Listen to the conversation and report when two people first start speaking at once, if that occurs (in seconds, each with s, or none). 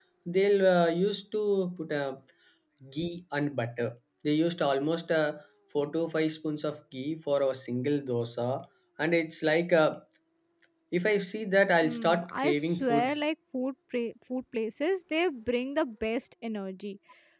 11.8 s